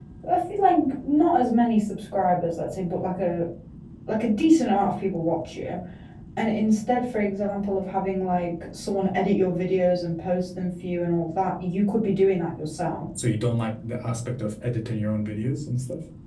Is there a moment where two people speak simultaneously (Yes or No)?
No